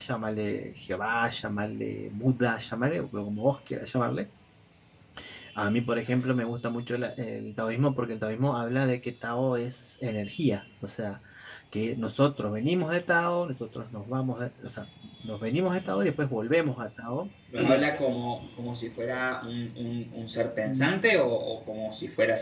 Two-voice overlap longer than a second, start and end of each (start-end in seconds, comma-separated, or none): none